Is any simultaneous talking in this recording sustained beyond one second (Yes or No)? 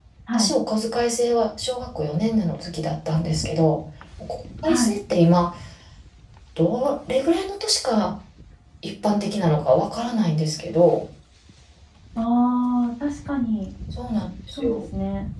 No